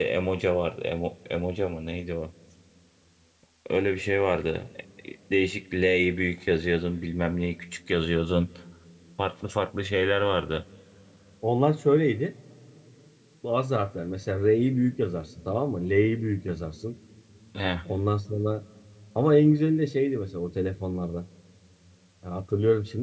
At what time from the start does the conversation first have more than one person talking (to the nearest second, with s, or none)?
none